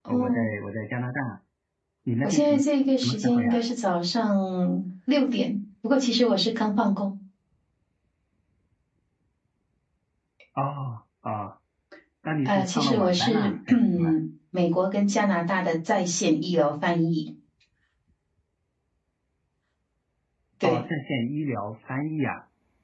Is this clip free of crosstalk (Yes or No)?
No